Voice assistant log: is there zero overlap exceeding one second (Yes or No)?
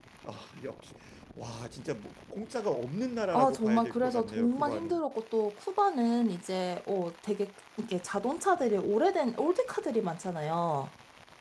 No